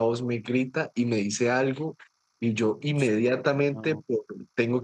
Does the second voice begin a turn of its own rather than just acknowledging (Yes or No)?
No